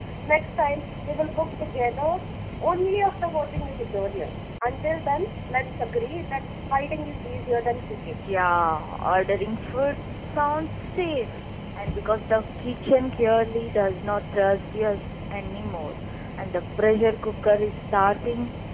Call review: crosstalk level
none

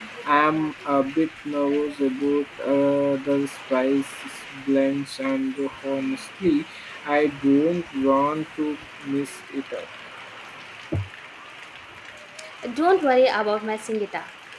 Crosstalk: none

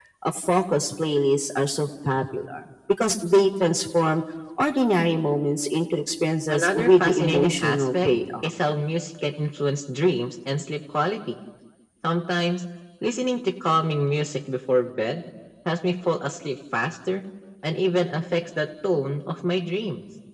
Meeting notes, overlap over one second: present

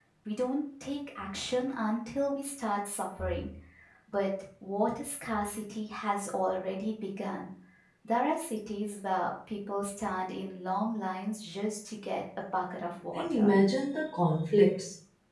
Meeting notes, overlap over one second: none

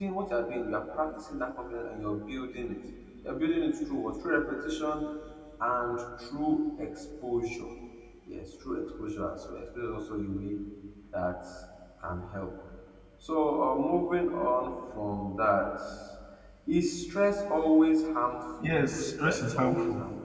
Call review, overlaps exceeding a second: present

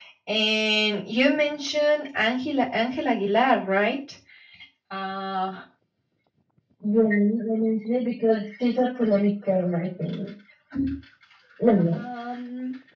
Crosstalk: none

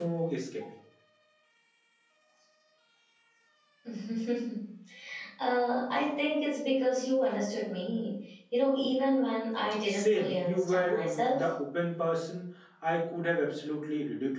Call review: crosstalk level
present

